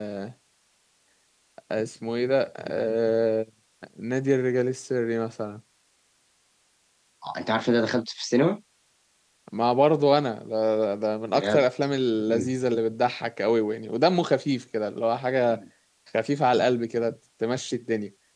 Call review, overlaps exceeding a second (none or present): none